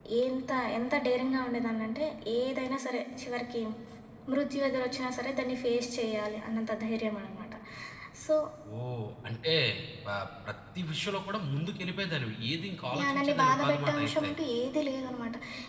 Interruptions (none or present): present